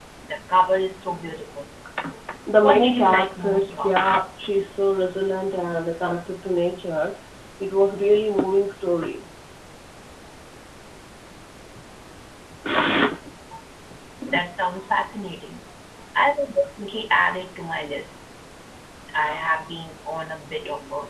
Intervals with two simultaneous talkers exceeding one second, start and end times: 2.6-4.1

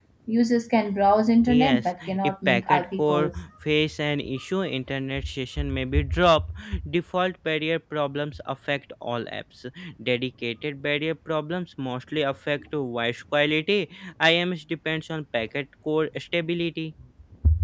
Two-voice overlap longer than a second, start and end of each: 1.5-3.3

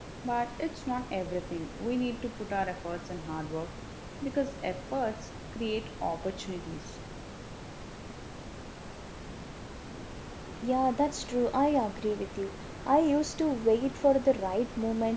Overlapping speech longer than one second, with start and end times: none

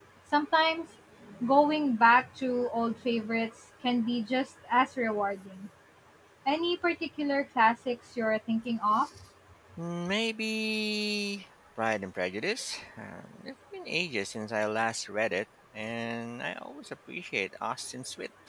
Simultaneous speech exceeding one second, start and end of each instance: none

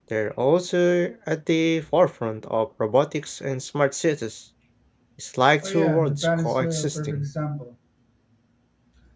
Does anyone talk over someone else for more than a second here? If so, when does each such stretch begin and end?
5.6-7.2

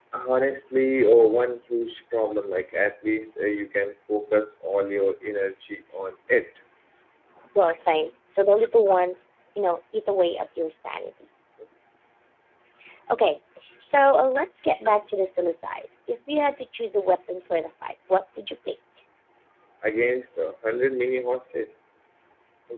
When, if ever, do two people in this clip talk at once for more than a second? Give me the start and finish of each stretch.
none

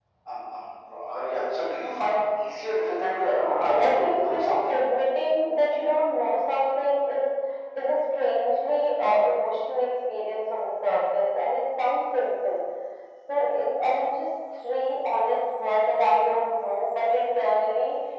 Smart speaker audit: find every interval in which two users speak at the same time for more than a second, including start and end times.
3.4-4.8

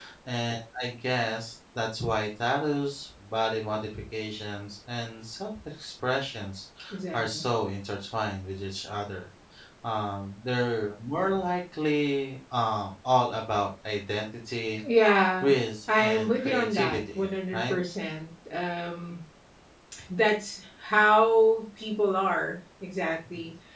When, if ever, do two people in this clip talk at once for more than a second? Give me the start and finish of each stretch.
16.0-17.7

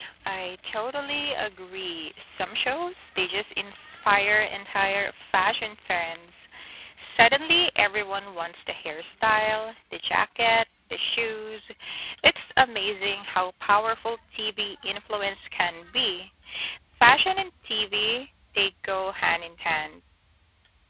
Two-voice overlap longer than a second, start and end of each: none

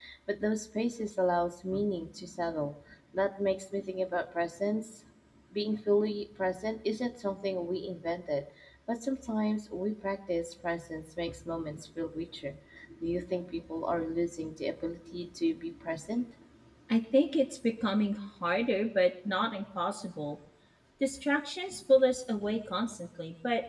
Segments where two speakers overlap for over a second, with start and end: none

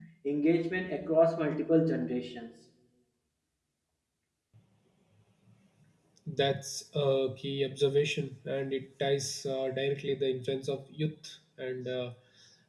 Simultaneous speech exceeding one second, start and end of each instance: none

